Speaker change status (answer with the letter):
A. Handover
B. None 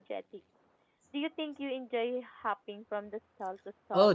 A